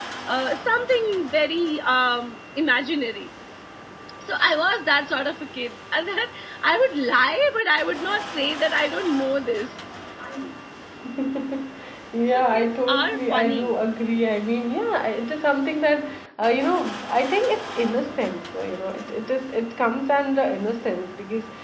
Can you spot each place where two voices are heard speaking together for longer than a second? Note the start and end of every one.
12.3-13.8

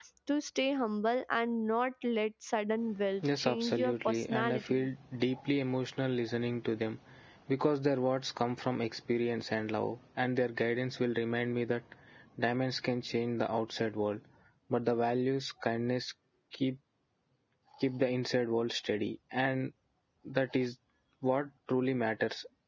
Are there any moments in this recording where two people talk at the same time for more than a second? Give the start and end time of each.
3.4-4.9

